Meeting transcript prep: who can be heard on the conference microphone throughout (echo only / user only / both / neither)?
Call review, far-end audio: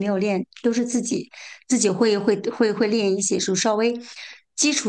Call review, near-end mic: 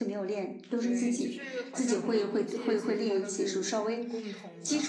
both